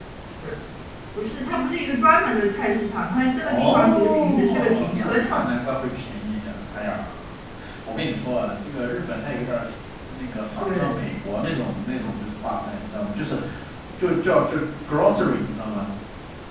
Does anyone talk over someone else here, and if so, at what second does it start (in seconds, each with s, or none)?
3.4 s